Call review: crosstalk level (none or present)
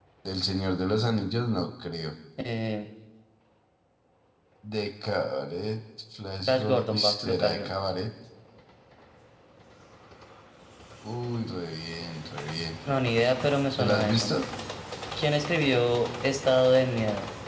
present